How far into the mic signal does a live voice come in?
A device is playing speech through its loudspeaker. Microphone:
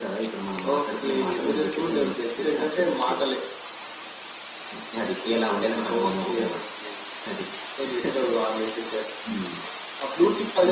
none

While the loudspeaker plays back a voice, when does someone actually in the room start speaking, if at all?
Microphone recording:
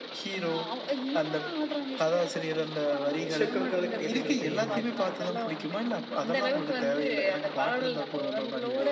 3 s

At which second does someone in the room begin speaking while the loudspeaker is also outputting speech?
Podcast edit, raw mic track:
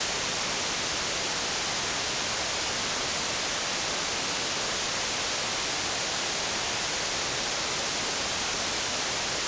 none

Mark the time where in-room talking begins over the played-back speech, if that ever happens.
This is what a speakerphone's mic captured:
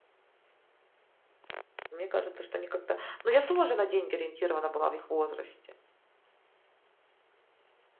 2 s

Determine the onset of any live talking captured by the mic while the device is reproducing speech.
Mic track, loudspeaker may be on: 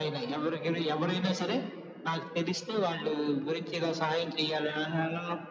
none

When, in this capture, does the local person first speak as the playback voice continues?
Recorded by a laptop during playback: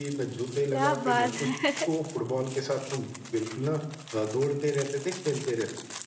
1 s

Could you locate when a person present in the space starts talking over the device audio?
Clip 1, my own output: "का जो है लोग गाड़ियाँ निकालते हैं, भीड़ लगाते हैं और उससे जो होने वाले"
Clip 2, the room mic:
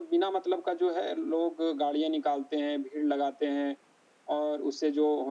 none

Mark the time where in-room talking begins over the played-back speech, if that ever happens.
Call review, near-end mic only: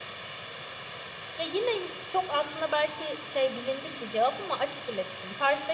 none

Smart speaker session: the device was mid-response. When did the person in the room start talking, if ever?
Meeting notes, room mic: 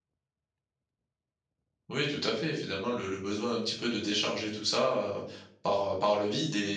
2 s

